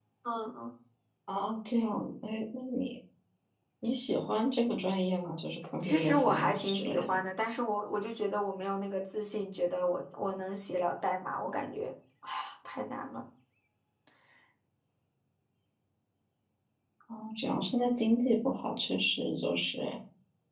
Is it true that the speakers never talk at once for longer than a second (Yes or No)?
No